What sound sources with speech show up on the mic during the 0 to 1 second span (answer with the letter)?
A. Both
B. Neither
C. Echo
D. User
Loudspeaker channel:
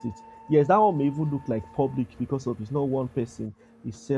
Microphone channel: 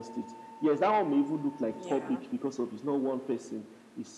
C